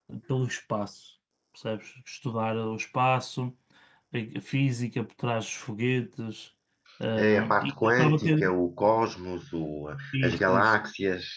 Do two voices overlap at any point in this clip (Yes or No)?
Yes